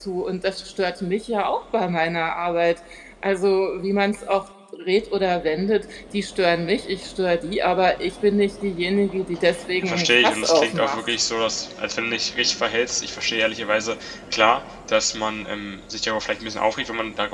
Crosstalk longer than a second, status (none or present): present